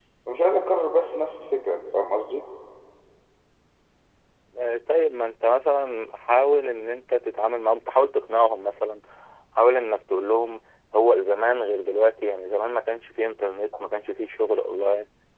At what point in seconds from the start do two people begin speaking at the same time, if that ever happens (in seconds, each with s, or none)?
none